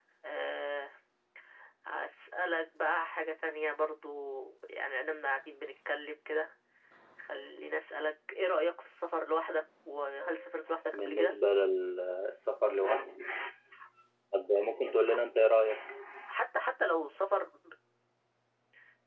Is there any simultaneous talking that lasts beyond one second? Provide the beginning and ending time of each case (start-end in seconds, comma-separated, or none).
none